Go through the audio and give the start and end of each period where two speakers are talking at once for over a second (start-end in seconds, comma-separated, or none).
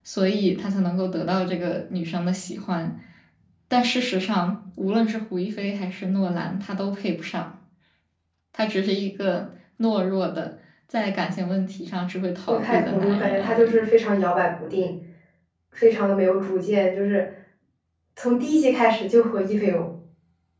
12.5-13.9